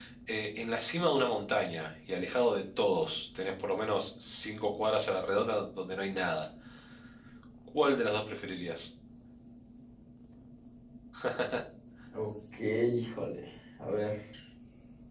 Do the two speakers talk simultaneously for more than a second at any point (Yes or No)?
No